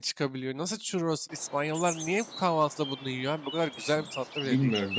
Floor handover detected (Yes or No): Yes